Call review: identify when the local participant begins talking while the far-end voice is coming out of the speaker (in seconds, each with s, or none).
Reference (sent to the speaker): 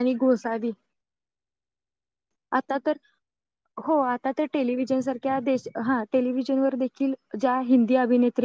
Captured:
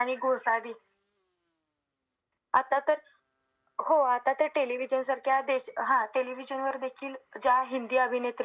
none